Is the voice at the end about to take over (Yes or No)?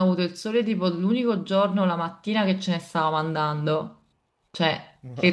No